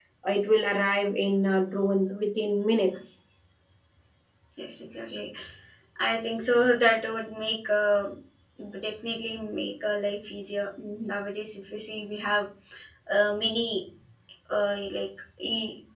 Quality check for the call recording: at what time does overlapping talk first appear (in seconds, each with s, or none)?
none